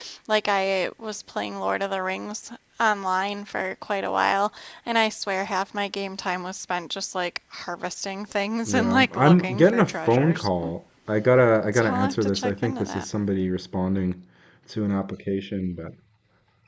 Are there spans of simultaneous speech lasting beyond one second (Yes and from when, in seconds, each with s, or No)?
Yes, from 8.7 s